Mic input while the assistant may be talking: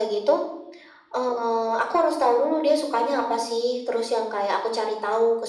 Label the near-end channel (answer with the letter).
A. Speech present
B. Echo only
B